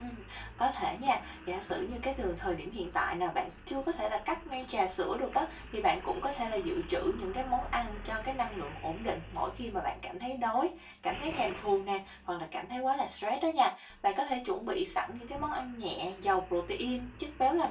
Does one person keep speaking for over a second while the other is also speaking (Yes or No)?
No